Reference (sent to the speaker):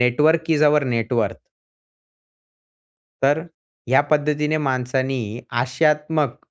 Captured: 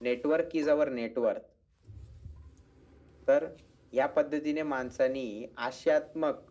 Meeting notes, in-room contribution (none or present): none